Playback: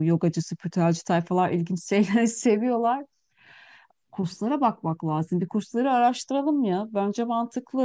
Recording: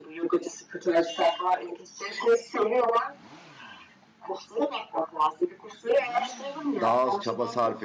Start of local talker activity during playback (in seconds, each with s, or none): 6.8 s